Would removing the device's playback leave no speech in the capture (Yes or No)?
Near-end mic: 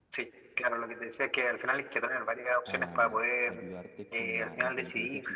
No